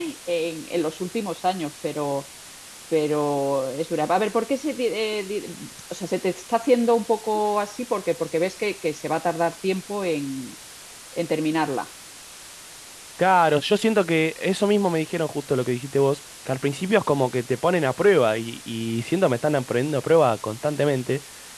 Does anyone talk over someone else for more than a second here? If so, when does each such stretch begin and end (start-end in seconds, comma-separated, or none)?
none